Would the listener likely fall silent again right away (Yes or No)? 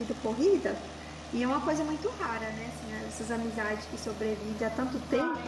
No